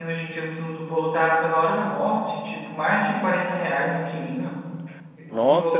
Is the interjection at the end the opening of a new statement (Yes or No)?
Yes